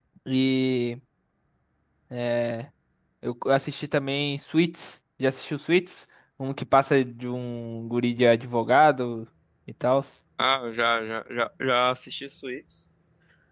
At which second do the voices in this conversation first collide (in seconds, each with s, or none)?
none